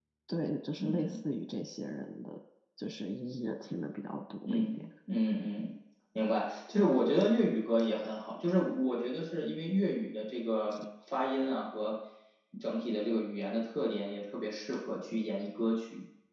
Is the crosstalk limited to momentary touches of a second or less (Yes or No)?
Yes